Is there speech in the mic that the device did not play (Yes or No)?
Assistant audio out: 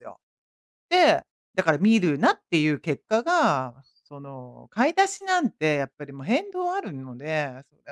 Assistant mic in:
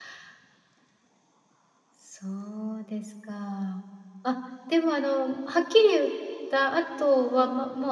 Yes